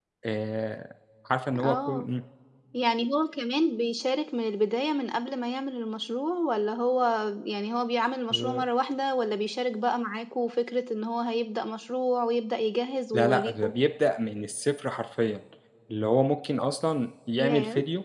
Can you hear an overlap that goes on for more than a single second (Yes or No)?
No